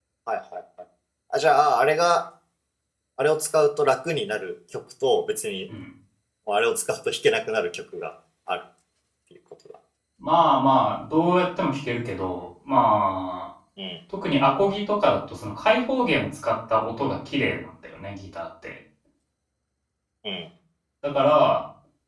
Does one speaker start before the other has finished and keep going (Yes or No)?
No